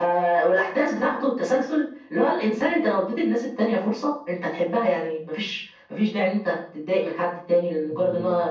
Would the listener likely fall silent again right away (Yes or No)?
Yes